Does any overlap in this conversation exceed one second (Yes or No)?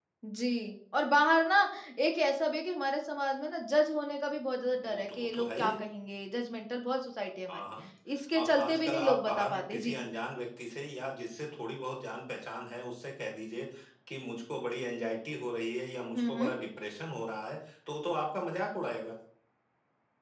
Yes